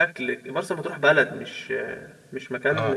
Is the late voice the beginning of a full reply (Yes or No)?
Yes